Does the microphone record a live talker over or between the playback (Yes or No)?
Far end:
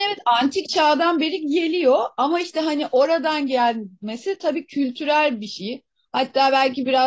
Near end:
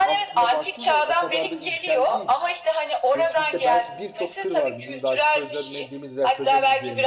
Yes